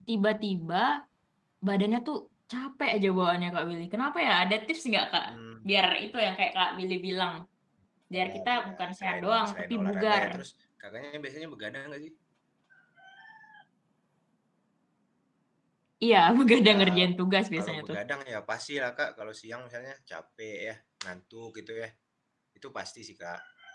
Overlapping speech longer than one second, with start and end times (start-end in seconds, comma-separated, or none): 8.2-10.3